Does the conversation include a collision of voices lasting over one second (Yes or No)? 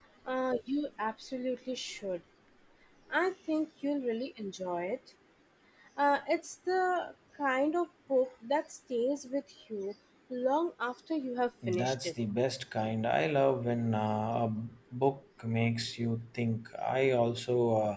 No